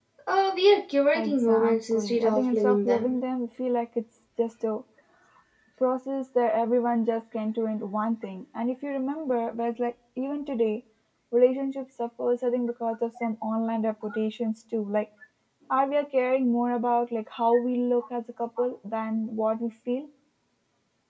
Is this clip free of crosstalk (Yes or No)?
No